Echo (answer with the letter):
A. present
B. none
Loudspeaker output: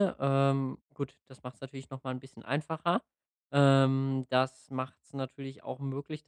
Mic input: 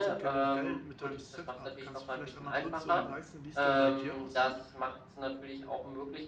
A